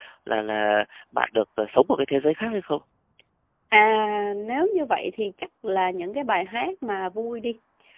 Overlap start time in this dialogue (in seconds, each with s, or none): none